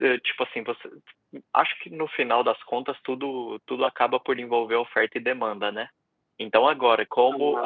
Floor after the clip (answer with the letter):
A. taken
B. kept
B